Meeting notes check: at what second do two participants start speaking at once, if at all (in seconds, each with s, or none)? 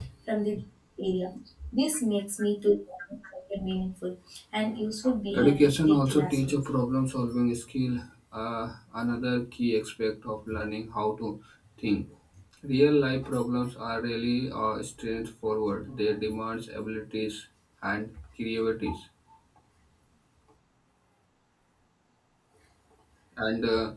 5.3 s